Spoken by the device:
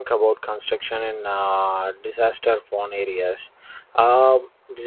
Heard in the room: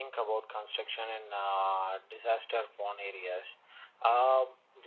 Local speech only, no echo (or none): none